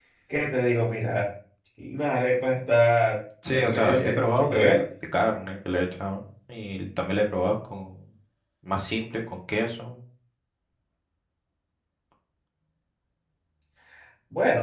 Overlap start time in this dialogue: 3.4 s

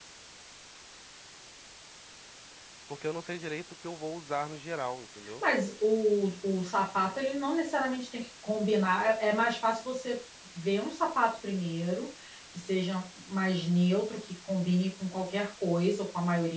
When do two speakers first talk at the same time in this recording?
none

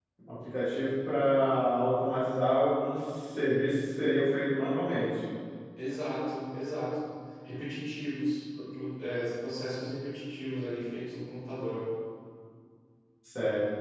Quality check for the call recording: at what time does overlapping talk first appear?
none

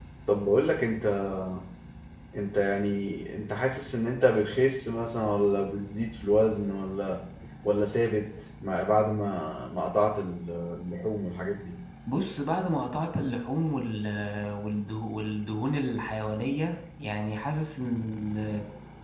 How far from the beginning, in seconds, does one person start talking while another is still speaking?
none

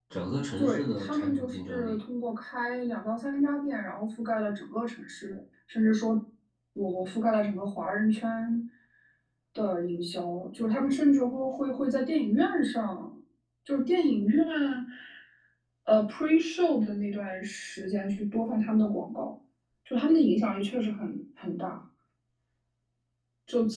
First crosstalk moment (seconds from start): 0.6 s

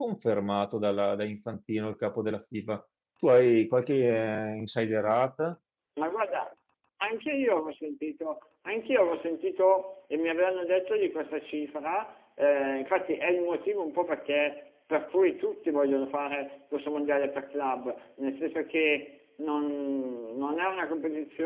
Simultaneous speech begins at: none

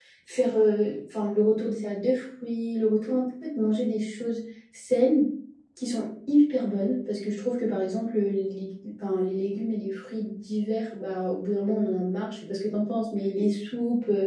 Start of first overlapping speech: none

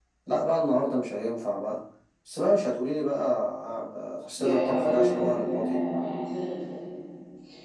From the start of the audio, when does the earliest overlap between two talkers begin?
4.4 s

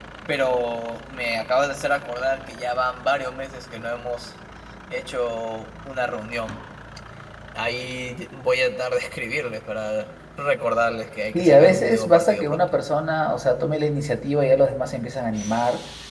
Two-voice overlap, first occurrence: 11.3 s

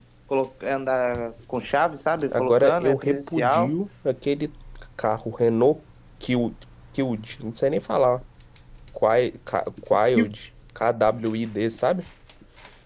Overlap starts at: 2.3 s

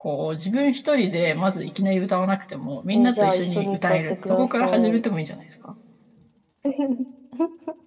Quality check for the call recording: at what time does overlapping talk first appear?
2.9 s

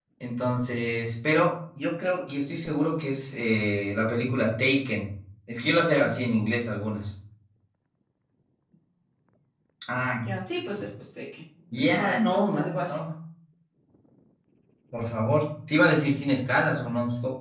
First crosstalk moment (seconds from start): 11.7 s

